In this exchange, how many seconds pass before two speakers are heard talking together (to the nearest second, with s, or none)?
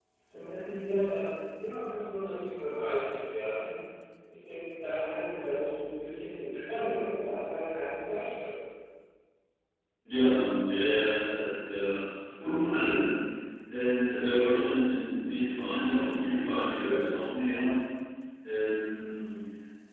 none